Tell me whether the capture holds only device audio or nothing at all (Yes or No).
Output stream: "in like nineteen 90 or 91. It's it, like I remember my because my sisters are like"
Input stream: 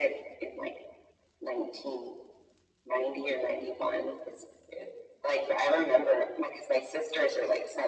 Yes